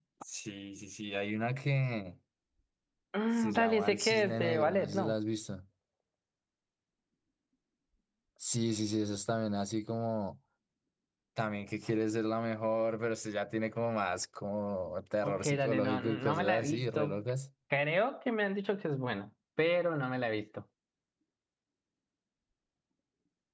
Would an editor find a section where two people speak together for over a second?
Yes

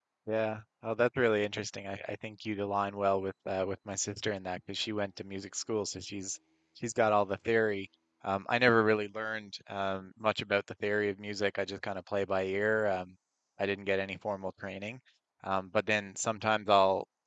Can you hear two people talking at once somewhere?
No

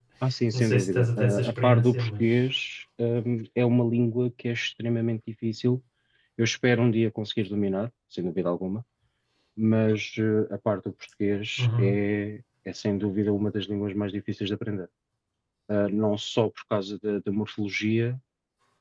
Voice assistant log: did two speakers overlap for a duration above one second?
Yes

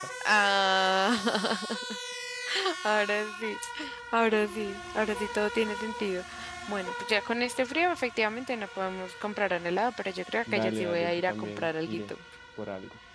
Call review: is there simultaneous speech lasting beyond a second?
Yes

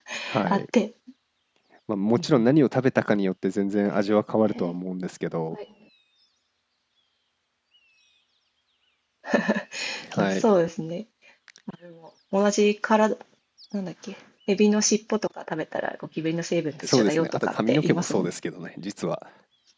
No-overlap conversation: No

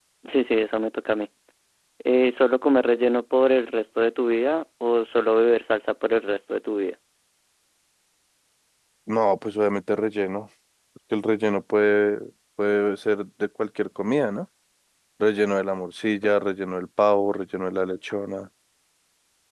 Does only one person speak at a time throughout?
Yes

